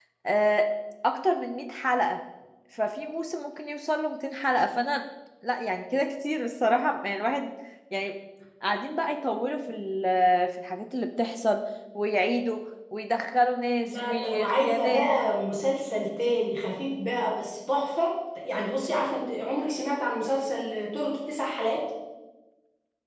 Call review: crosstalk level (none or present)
present